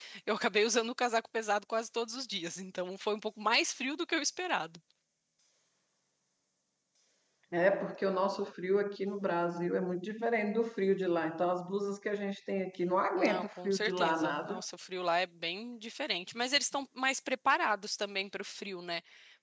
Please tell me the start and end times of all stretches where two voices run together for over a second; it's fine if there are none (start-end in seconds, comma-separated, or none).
13.2-14.6